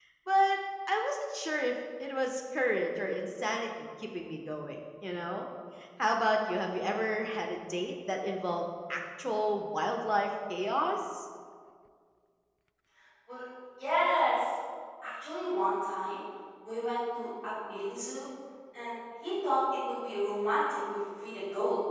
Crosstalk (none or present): none